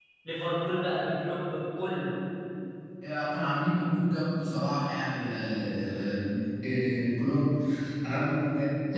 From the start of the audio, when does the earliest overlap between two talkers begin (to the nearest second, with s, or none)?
none